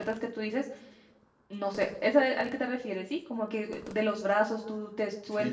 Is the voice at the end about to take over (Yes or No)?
Yes